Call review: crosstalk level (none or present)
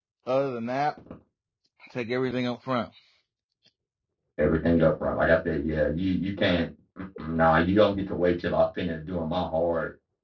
none